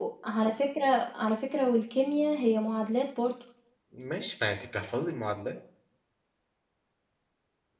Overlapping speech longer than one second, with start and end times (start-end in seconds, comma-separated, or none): none